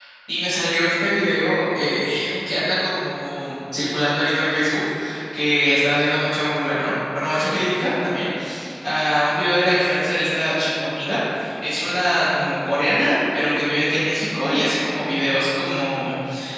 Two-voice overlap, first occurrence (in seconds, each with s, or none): none